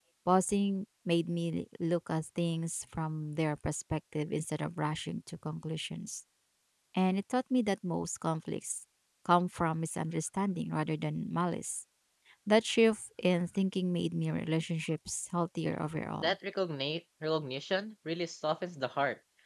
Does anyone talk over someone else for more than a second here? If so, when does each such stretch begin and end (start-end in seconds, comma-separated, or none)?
none